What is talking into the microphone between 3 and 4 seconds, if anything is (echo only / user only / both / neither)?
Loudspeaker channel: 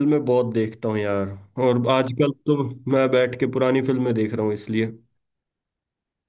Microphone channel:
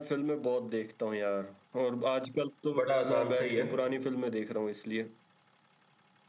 both